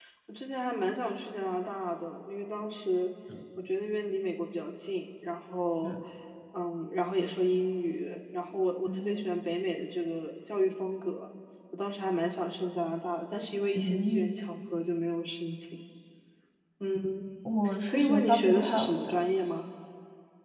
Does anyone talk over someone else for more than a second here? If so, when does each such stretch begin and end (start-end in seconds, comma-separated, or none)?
17.9-19.2